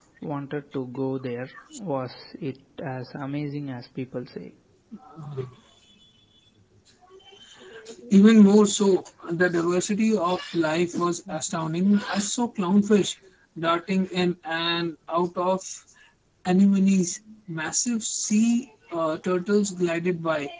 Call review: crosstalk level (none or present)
none